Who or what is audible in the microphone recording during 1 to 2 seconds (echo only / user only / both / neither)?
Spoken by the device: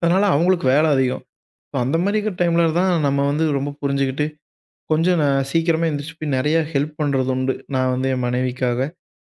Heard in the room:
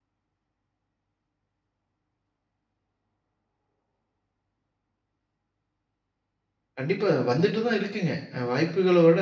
neither